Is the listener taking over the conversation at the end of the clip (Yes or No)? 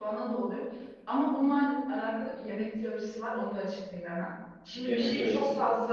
No